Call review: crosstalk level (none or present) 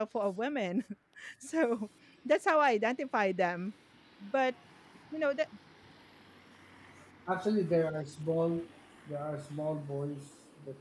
none